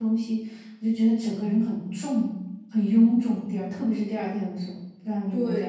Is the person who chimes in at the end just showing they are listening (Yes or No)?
No